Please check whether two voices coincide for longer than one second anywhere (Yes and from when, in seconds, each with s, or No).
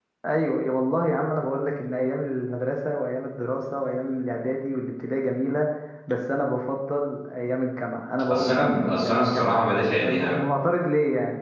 Yes, from 8.3 s